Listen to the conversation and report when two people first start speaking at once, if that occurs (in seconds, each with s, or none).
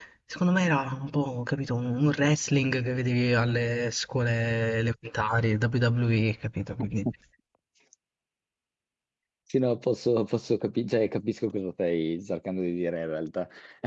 none